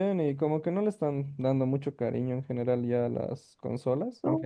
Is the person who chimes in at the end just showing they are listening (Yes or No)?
No